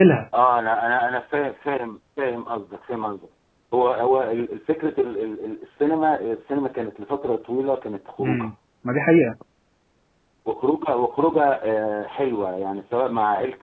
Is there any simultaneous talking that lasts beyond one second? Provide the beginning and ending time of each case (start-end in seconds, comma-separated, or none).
none